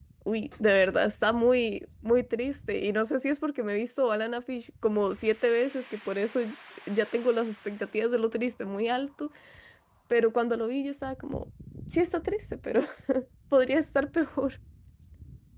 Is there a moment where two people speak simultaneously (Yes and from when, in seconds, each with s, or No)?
No